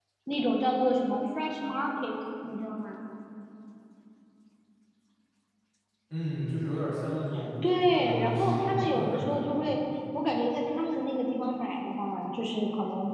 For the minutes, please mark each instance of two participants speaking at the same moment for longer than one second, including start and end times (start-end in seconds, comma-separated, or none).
7.9-9.5